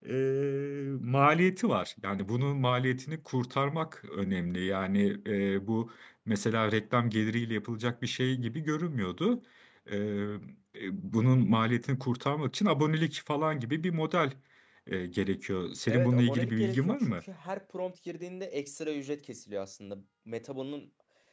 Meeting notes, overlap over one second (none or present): present